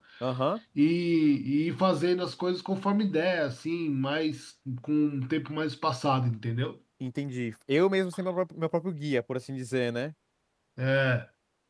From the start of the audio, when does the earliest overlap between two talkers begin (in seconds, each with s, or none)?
none